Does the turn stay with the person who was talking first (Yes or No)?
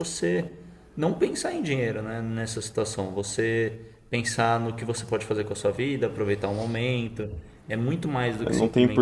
No